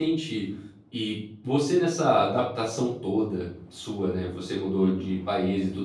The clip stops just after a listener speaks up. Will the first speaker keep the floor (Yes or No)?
Yes